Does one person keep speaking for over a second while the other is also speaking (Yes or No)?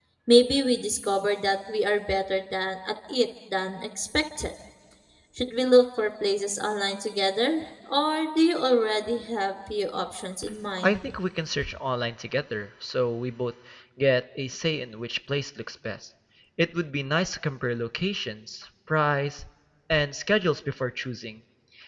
No